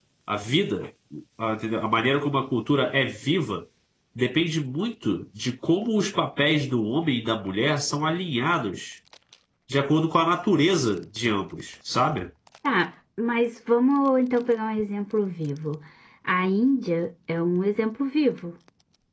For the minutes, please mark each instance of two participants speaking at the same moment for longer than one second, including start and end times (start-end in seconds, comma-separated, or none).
none